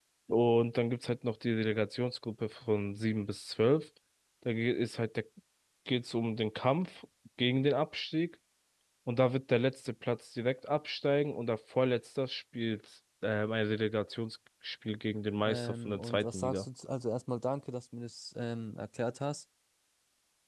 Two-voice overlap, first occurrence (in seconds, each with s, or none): 15.4 s